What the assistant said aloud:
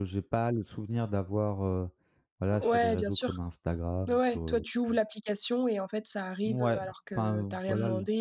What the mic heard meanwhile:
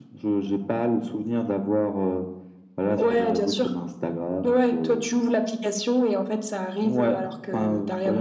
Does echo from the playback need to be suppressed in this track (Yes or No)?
Yes